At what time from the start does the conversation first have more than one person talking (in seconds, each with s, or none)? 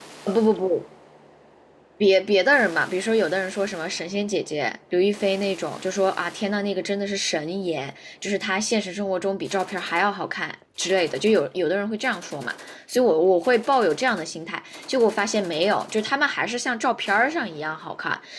none